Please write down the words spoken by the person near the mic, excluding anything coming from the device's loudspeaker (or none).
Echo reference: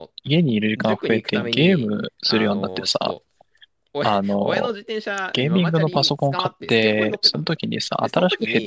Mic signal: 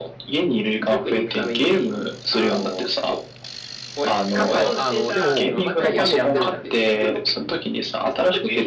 傘を、あの、でも、帰り雨止んでるじゃん。